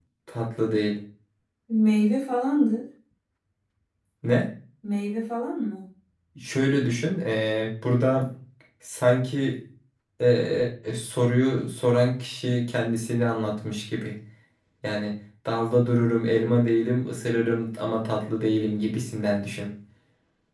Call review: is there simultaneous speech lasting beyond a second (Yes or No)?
No